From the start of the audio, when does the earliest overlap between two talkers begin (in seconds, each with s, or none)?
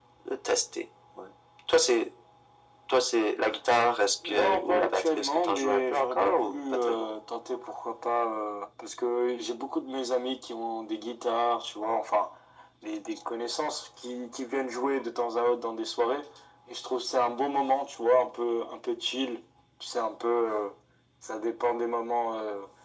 4.2 s